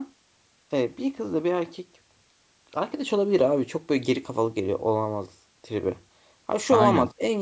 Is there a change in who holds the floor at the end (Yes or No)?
No